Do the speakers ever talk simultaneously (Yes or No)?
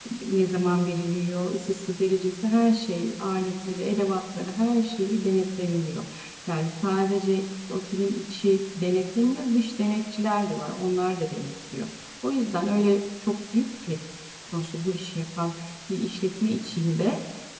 No